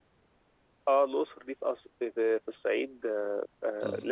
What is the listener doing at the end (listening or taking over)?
listening